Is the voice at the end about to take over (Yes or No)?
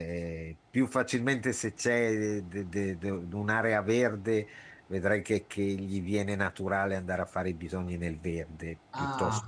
Yes